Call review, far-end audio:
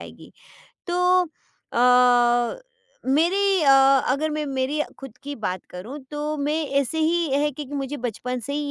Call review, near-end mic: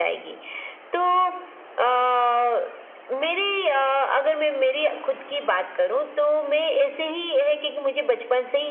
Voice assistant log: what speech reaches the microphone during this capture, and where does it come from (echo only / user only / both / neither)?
echo only